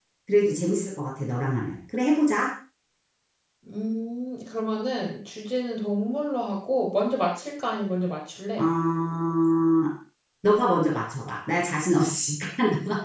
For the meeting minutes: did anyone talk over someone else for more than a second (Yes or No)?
No